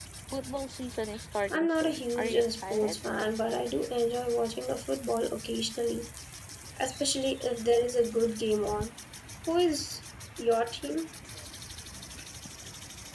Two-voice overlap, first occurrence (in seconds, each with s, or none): 1.5 s